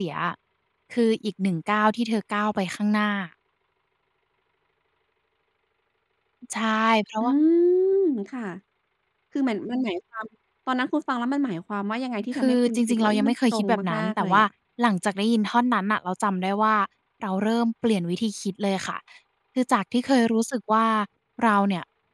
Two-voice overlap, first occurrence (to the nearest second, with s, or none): 12 s